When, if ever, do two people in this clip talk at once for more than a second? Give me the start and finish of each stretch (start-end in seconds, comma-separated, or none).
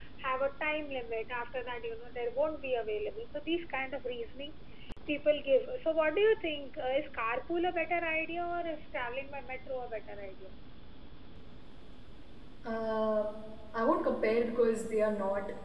none